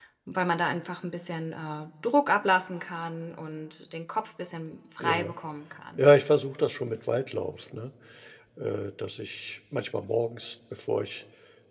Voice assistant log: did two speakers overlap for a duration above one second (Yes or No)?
No